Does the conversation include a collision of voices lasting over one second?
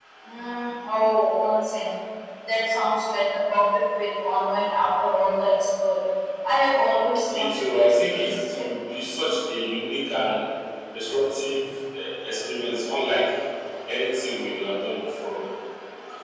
Yes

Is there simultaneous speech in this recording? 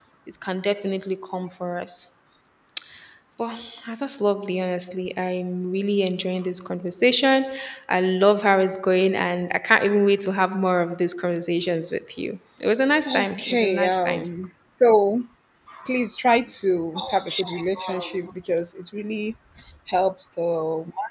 Yes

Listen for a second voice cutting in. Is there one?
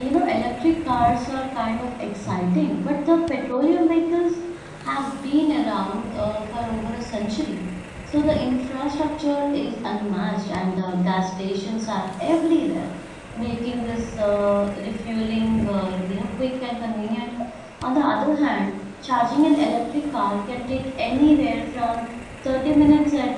No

